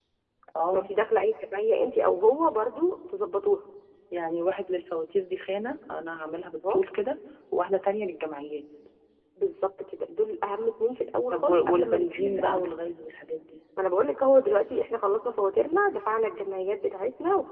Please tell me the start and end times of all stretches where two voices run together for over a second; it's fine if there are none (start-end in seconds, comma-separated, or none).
11.3-12.6